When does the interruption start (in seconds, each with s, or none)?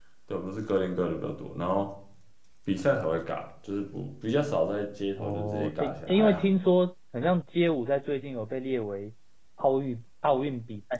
5.2 s